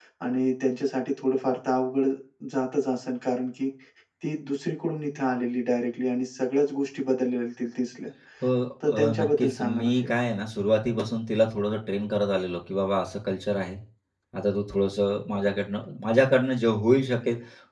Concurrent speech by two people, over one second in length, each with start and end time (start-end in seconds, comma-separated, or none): 8.9-10.1